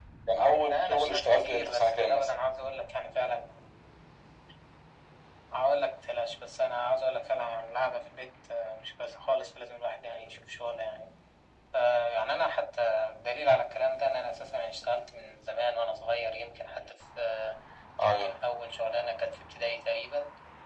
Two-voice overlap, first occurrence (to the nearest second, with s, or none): 1 s